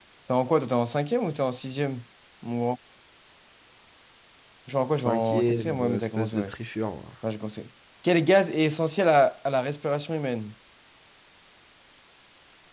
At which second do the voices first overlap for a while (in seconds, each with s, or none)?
5.0 s